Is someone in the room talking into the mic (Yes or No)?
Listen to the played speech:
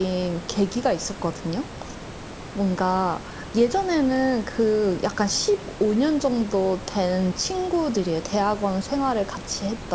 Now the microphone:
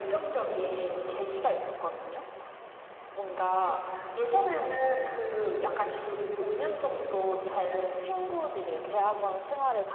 No